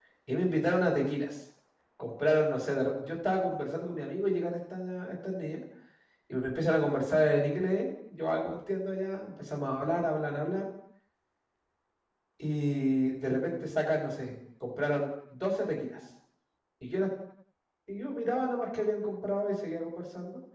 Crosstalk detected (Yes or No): No